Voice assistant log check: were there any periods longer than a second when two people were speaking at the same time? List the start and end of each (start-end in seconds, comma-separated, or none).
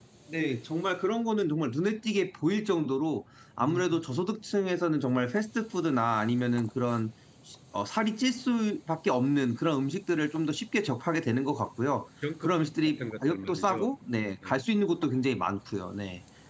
12.4-13.8